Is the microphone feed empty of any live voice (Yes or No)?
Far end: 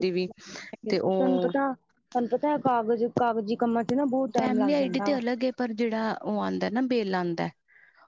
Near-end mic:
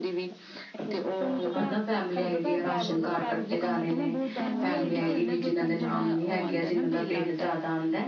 No